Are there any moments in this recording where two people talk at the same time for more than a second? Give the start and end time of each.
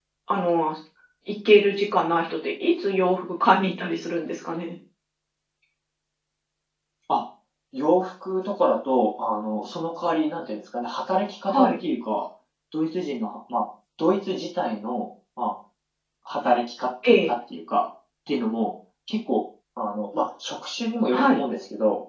none

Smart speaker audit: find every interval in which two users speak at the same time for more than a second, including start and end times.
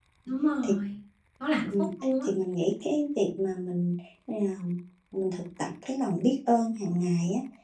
none

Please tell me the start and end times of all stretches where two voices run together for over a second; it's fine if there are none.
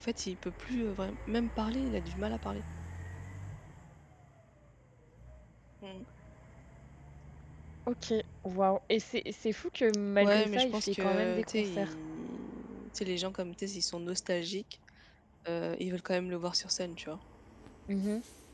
10.2-11.9

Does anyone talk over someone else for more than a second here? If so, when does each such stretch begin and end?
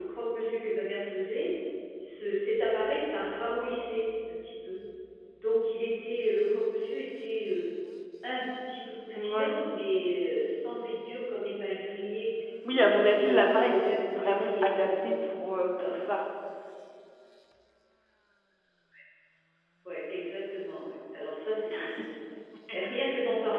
12.8-15.1

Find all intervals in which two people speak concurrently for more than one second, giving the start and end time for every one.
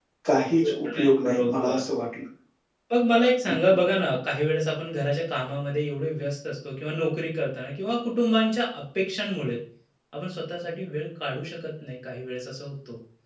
0.6-1.8

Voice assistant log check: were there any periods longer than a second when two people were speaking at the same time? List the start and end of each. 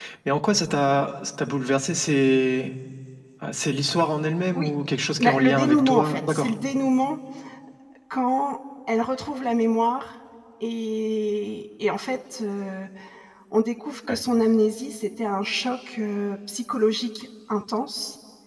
5.2-6.5

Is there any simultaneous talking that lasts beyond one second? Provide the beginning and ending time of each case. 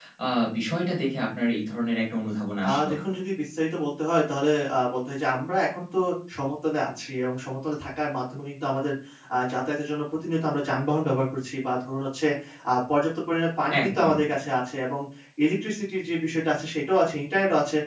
none

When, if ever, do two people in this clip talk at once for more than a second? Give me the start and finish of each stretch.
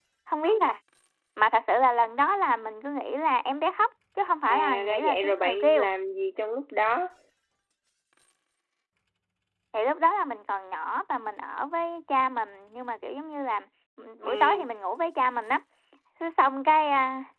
4.5-5.9

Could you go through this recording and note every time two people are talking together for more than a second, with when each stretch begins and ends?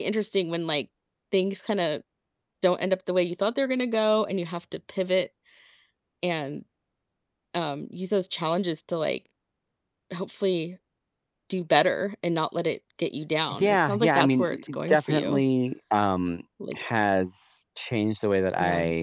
13.6-15.4

